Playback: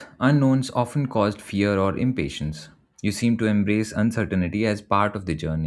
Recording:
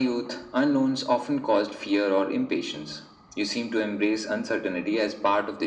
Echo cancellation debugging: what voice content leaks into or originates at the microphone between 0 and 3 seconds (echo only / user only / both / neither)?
echo only